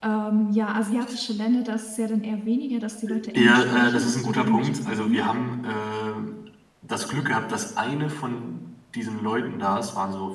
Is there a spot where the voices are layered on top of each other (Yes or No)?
Yes